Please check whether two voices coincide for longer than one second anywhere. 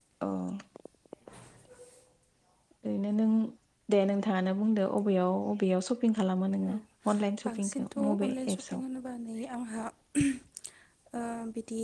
Yes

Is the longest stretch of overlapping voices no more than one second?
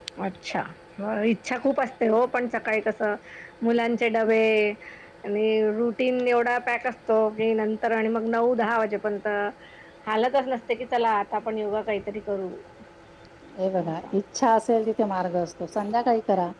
Yes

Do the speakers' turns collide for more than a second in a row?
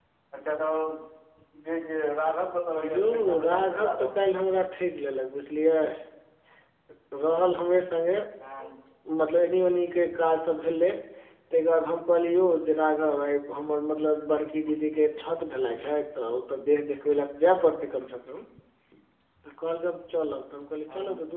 Yes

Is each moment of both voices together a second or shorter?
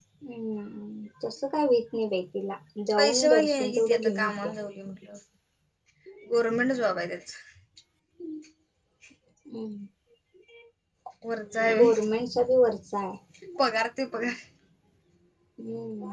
No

